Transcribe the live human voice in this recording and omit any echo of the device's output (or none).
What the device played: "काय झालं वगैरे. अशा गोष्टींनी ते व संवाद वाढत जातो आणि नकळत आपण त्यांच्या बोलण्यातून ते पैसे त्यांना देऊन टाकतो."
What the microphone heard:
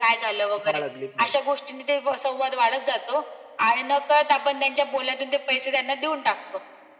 बाळगली पाहिजे.